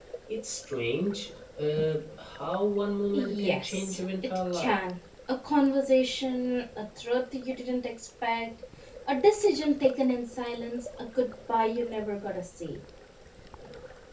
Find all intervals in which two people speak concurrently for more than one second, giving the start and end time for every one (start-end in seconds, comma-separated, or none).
3.1-4.8